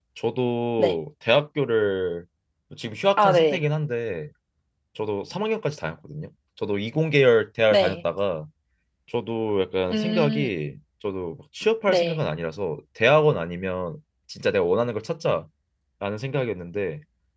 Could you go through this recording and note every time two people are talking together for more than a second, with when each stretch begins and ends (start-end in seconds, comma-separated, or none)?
none